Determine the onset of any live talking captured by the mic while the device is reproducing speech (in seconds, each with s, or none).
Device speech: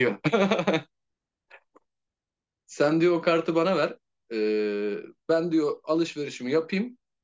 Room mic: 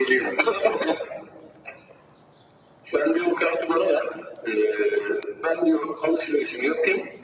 none